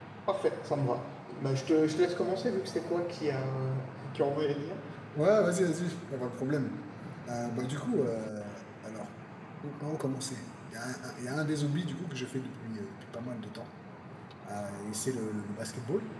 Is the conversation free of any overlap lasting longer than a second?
Yes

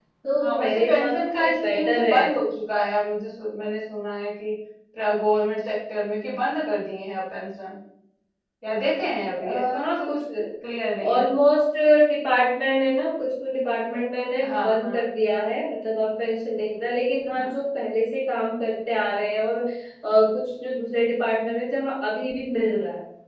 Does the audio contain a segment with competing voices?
Yes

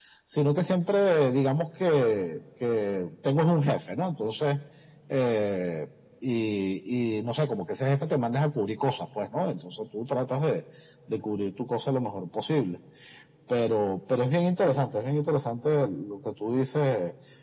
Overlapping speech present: No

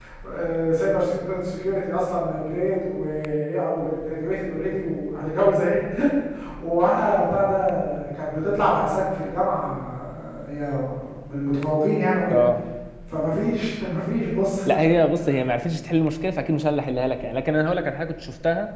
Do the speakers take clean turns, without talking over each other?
Yes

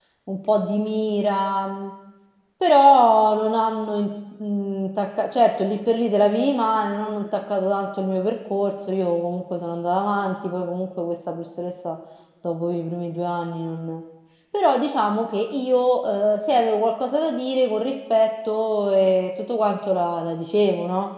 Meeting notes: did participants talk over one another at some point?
No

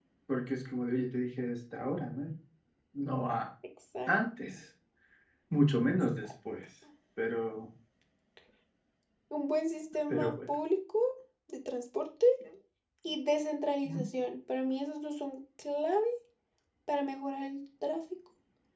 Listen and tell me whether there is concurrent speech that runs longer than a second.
No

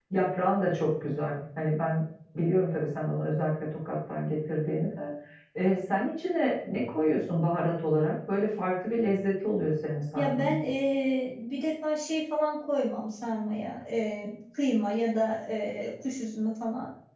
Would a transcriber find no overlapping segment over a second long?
Yes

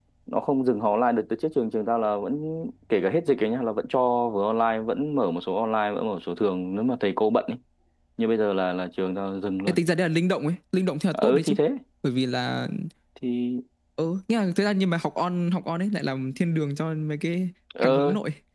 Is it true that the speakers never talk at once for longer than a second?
Yes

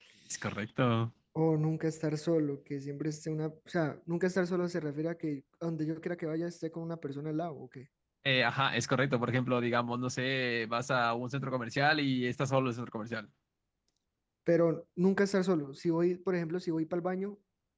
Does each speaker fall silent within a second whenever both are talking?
Yes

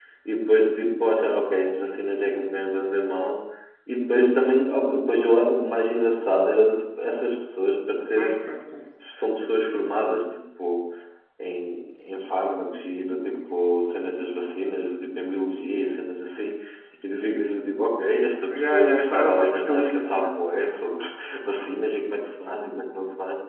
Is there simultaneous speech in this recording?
Yes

